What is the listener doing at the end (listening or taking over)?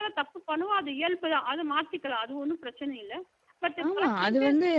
taking over